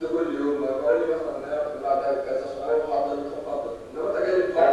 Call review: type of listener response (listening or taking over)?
taking over